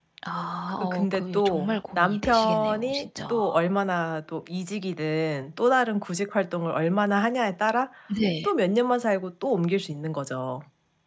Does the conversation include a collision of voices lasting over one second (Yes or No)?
Yes